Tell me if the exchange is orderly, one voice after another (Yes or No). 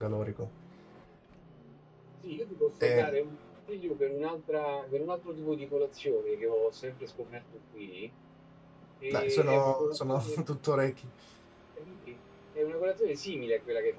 No